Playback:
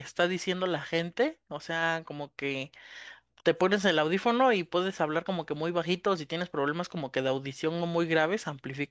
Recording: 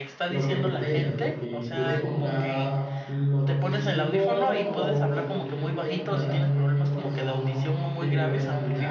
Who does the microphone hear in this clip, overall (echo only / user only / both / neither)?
both